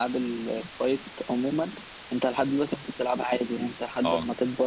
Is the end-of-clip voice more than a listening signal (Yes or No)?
No